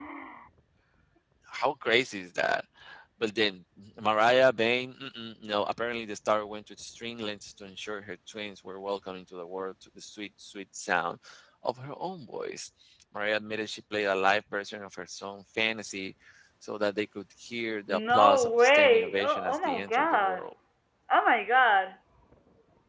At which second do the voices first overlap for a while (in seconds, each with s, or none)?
17.9 s